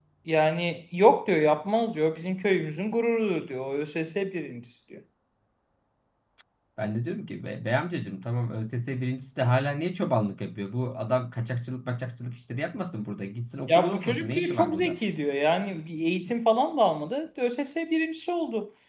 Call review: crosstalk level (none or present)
present